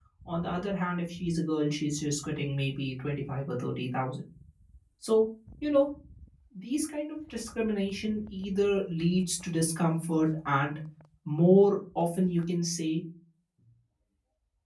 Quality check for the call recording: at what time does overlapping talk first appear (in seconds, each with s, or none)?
none